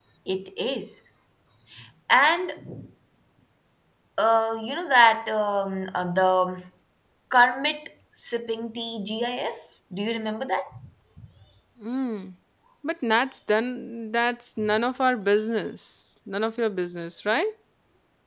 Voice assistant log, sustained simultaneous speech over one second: none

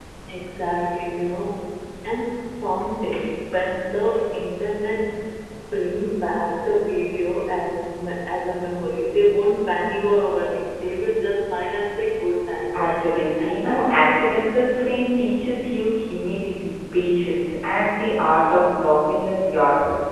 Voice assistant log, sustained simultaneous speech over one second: present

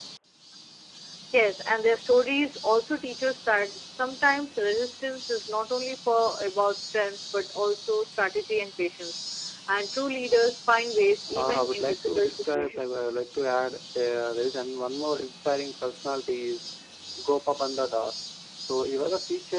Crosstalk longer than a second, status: present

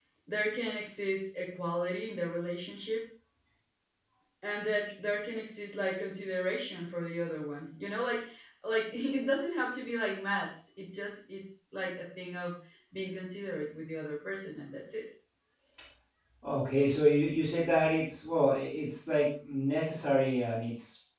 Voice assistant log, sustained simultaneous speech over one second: none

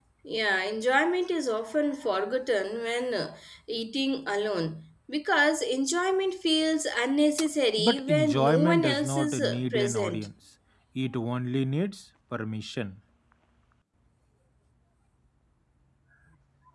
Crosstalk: present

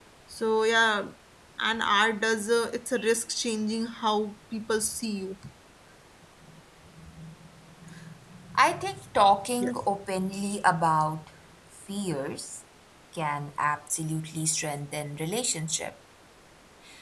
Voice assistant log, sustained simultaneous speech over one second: none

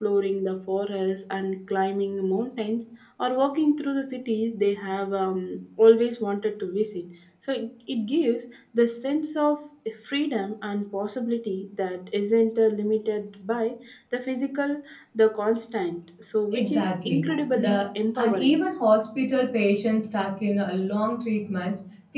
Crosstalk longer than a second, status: present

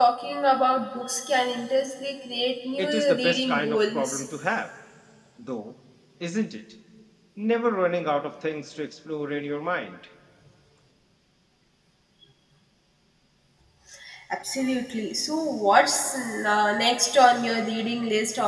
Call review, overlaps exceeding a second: present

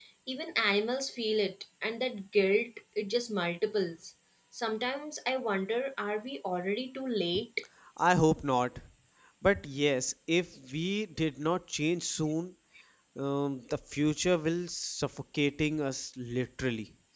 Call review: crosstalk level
none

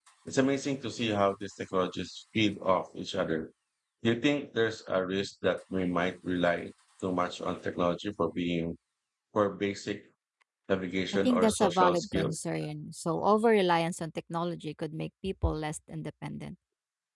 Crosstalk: present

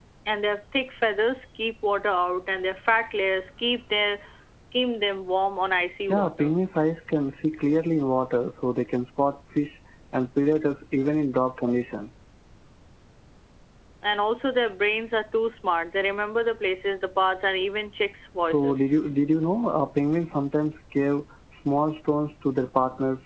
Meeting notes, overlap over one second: none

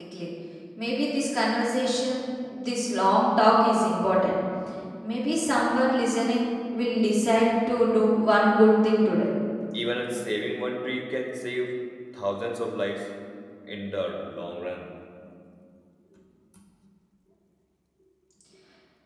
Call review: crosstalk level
none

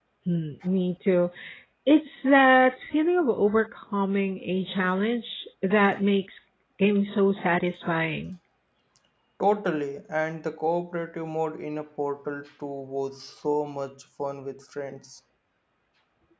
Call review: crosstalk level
none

